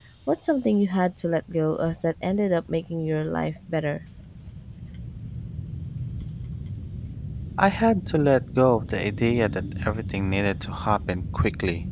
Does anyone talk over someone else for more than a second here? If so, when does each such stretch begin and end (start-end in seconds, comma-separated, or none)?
none